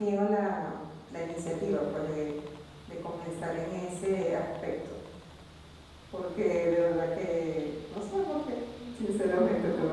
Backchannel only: Yes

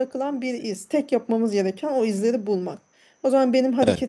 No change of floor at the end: Yes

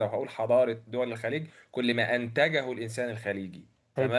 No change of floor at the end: Yes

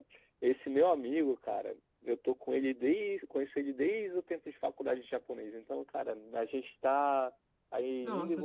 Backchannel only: Yes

